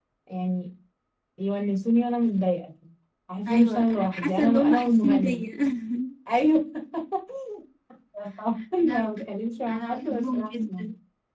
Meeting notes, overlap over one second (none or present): present